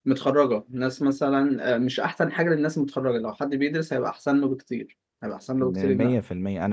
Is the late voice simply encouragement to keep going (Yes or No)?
No